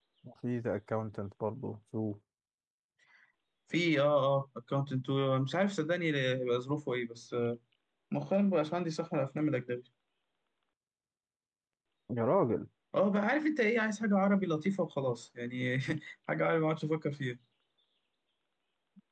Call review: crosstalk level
none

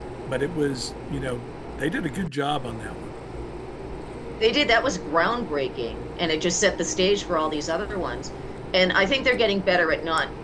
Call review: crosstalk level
none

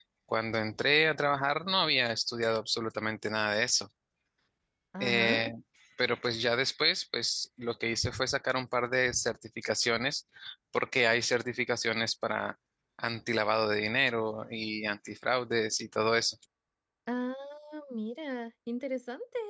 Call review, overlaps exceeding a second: none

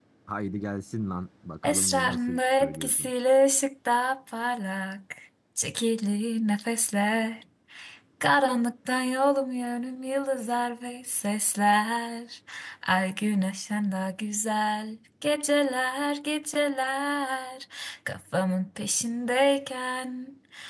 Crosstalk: present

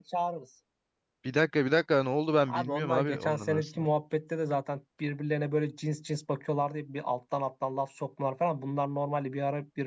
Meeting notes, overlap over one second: present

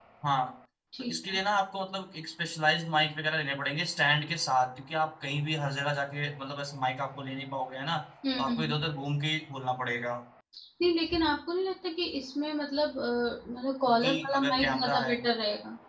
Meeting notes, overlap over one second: present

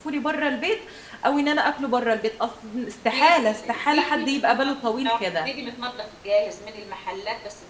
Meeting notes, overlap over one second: present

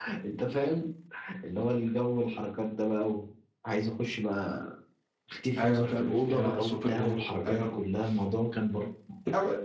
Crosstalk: present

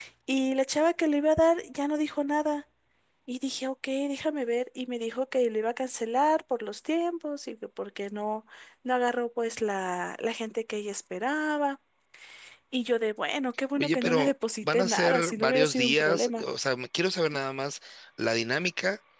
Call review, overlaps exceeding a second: present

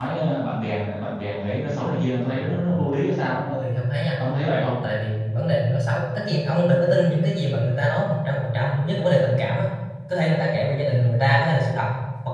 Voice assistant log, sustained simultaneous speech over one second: none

